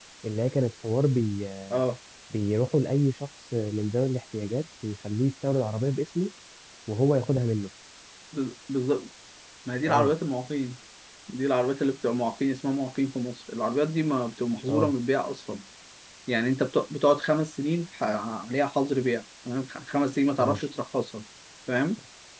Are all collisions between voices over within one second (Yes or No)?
Yes